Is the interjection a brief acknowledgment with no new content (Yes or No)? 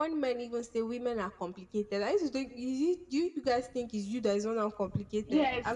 No